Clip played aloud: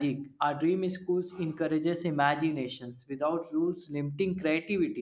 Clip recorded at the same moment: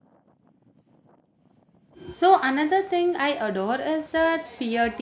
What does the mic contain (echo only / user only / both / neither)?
user only